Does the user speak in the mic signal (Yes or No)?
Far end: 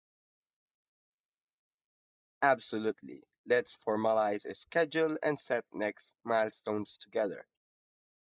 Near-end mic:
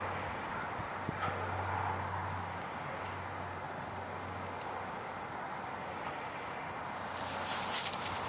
No